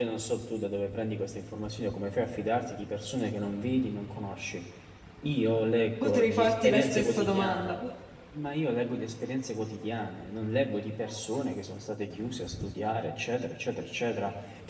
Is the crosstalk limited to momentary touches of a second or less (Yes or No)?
No